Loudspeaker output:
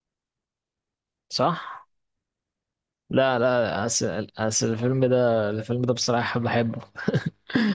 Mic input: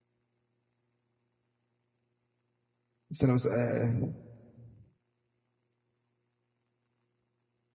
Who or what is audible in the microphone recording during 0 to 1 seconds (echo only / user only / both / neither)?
neither